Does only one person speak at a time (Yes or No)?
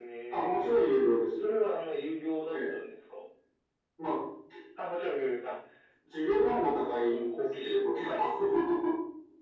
No